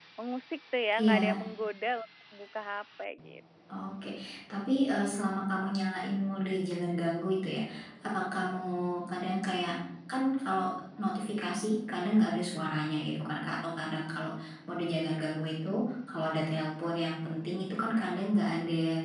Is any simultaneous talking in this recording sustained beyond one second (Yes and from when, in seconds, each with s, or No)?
No